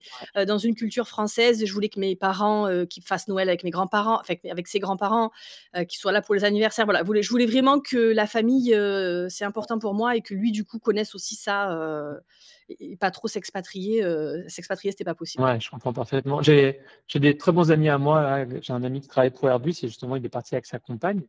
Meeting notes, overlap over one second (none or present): none